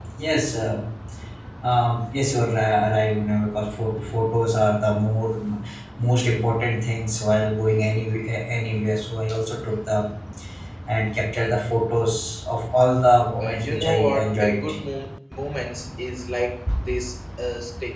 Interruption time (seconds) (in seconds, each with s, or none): 13.4 s